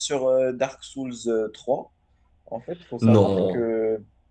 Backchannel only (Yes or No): Yes